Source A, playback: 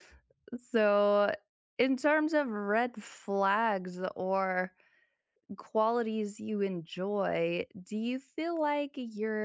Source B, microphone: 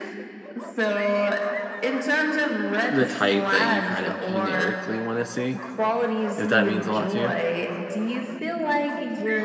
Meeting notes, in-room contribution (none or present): present